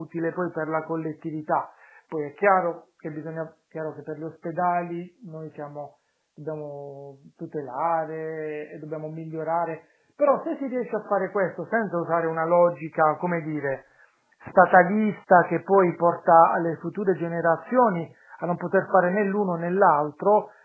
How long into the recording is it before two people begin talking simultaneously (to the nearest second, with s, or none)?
none